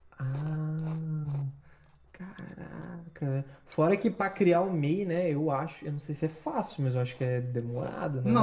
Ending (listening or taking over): taking over